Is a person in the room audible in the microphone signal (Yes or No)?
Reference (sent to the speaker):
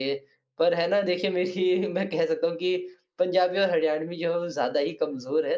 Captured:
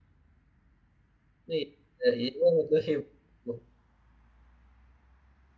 Yes